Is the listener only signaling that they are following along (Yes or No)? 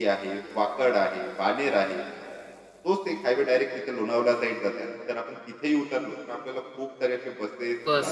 No